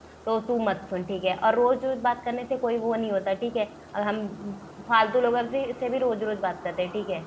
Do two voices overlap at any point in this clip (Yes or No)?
No